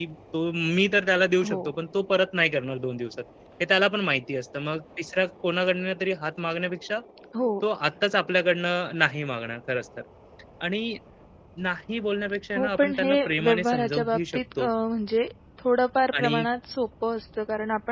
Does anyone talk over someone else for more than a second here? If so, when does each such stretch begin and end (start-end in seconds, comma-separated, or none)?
12.6-14.7